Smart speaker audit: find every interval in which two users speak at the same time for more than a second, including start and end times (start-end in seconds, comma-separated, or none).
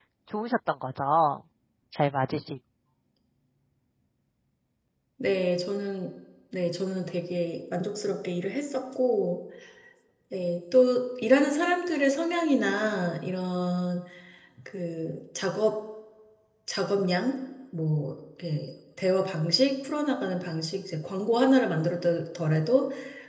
none